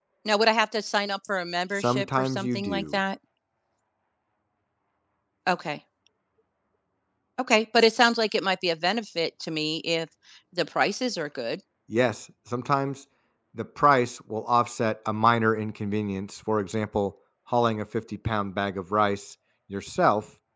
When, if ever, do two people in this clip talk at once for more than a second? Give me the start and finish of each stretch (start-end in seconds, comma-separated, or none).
1.8-3.0